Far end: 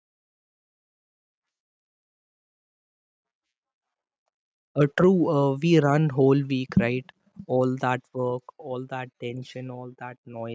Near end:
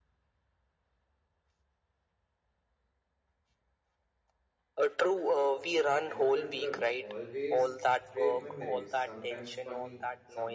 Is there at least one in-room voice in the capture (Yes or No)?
Yes